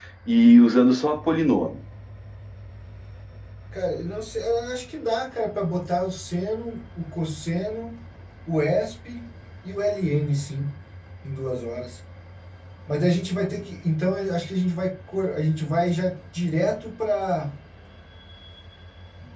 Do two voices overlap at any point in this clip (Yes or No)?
No